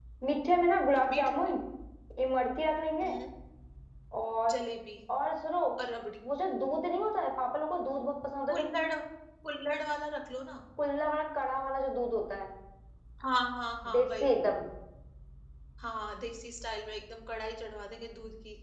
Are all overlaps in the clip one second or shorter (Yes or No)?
Yes